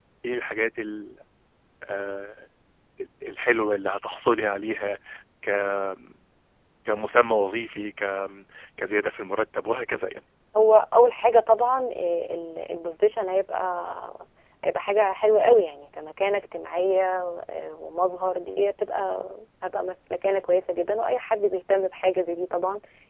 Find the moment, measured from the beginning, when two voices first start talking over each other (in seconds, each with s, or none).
none